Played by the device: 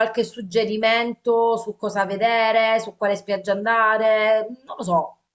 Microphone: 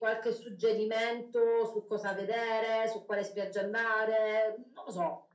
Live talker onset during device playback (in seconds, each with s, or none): none